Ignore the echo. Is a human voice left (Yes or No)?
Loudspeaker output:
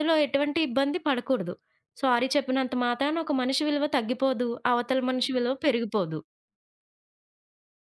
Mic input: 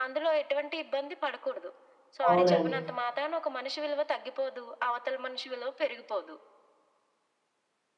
Yes